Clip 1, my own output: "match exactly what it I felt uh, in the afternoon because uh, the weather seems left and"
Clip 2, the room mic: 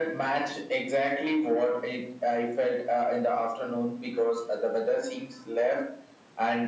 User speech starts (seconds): none

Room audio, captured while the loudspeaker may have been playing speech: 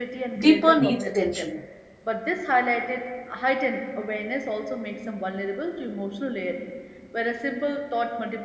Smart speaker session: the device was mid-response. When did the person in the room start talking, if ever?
0 s

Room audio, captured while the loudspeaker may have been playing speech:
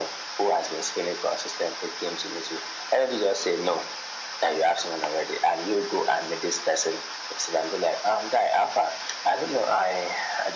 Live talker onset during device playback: none

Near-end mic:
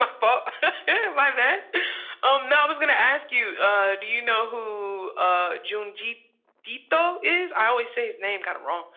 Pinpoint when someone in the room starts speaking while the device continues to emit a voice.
none

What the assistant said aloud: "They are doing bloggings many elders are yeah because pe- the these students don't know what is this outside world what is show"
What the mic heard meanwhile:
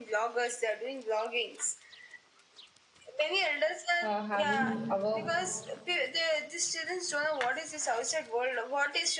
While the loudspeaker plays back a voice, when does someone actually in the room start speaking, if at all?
4 s

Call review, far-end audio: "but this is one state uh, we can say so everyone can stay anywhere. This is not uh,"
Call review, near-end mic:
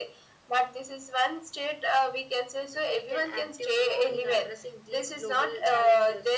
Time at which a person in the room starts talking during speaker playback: 3 s

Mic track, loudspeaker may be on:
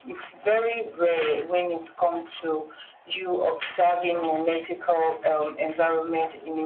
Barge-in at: none

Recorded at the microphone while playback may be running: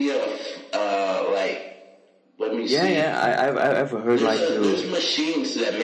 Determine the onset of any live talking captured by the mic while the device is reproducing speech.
3 s

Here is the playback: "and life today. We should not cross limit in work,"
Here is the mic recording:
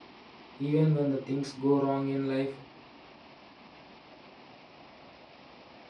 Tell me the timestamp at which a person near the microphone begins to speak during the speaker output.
1 s

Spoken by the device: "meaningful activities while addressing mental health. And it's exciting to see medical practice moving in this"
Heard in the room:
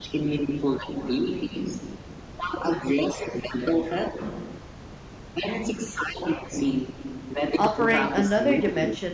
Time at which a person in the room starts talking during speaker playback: 8 s

